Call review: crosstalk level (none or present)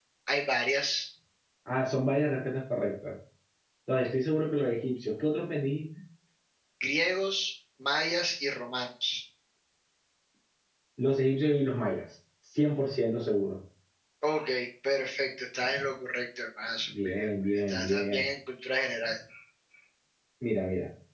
present